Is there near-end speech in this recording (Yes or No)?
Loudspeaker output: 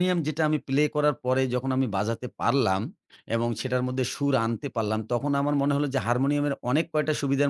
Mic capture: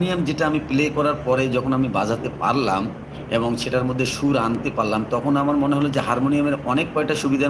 No